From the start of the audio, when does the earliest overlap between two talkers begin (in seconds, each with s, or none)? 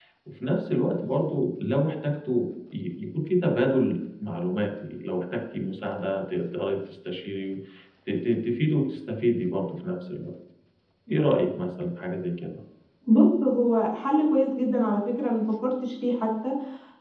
none